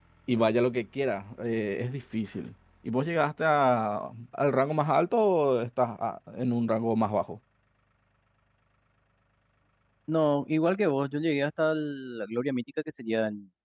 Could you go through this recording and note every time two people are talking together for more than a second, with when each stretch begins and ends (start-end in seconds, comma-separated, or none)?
none